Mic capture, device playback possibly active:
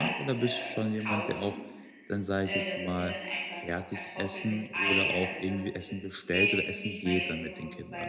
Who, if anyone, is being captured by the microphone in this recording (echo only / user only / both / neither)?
both